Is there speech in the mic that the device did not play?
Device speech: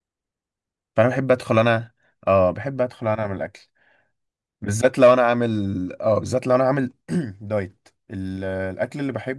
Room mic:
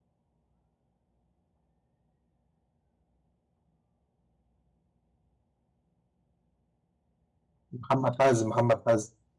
Yes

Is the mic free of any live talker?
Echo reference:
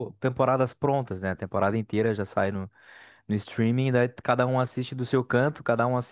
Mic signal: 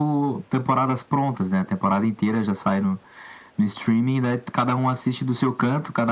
Yes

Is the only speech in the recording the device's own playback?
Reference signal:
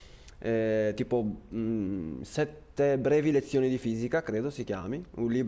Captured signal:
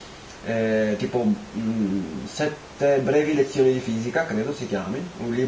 Yes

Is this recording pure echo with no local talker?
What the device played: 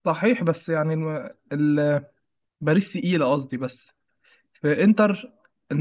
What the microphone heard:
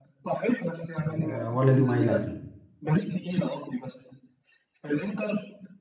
No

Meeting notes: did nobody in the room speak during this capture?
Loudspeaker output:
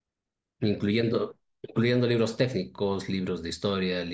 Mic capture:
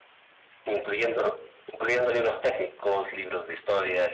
Yes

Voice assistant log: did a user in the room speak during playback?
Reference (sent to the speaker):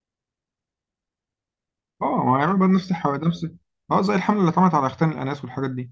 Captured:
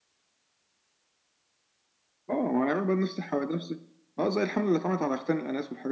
No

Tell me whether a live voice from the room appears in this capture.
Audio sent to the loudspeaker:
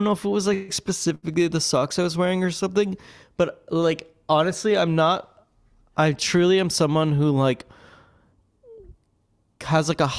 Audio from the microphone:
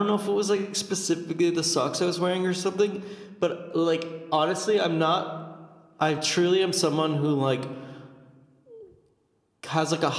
No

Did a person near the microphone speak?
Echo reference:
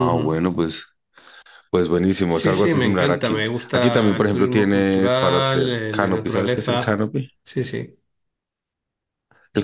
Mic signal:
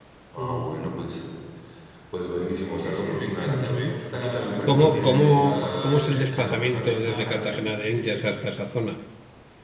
Yes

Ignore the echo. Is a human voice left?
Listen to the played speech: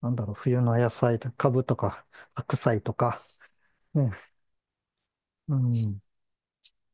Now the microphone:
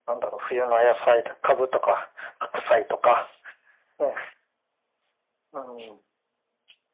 No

